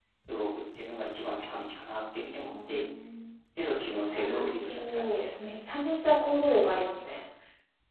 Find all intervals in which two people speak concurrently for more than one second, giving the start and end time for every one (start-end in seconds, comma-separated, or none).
3.9-5.4